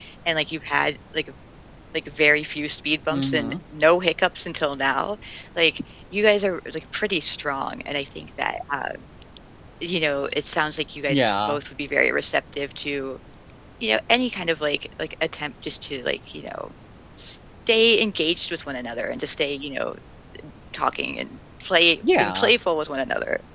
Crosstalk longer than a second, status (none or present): none